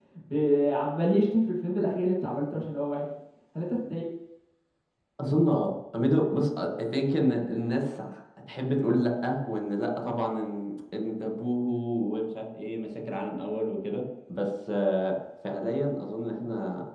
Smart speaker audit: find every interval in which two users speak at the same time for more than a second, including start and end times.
none

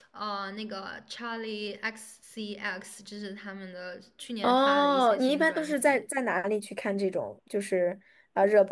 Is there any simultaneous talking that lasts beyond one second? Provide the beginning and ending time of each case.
4.4-6.0

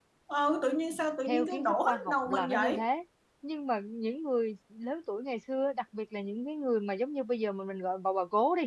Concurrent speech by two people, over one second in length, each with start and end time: 1.3-2.9

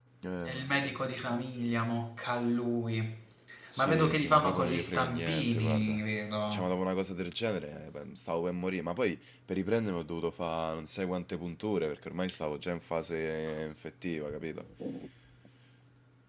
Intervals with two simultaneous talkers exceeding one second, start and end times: 3.8-6.0

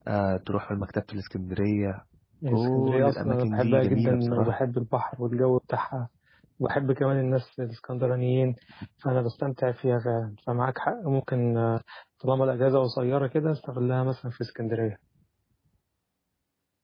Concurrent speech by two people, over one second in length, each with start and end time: 2.5-4.6

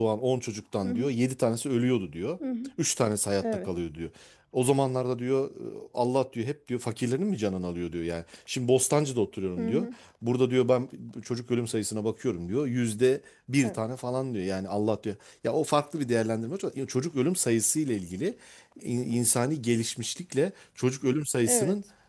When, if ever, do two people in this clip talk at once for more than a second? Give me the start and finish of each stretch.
none

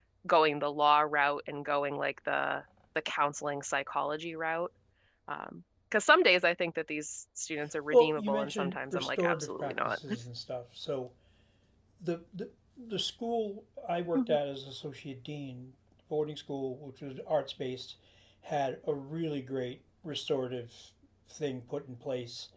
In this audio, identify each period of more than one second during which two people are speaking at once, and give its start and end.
7.9-10.0

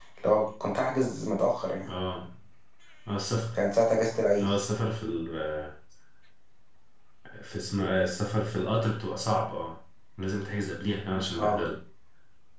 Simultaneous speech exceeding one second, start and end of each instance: none

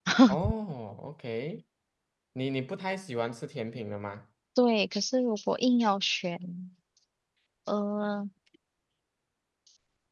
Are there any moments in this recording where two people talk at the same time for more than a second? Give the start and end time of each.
none

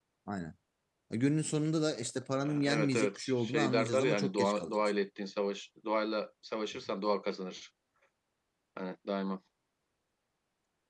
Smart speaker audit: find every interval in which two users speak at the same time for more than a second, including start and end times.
2.6-4.9

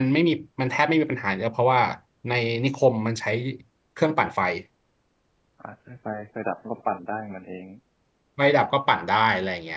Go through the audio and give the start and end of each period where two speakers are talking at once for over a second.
none

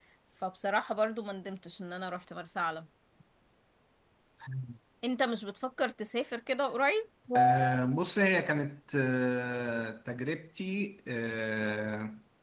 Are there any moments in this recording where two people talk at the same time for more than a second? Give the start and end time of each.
none

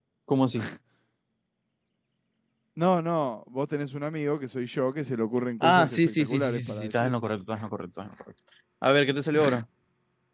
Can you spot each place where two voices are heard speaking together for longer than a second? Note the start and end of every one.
5.6-7.2

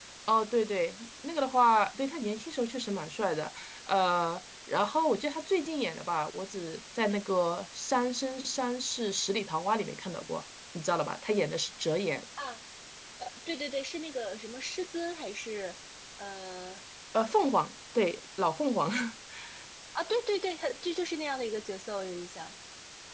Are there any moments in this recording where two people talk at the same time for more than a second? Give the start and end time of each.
none

